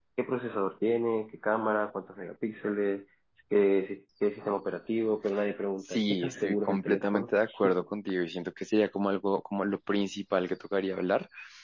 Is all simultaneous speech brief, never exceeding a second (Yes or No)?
No